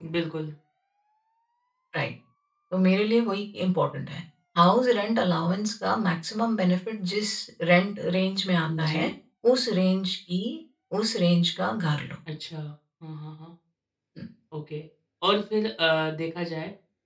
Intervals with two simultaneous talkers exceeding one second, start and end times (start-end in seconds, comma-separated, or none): none